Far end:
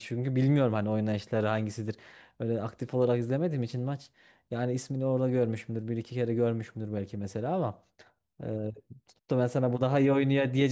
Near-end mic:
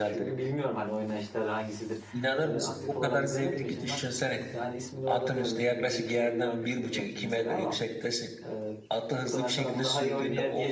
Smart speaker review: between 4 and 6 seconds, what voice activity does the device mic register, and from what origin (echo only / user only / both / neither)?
both